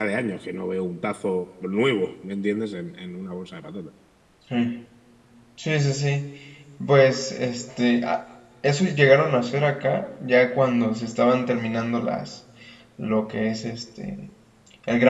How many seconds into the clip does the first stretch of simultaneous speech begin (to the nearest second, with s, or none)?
none